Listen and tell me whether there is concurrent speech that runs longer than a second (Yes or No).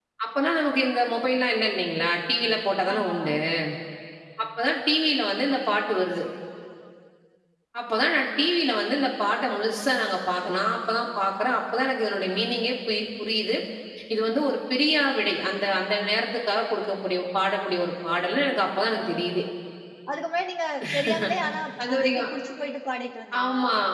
No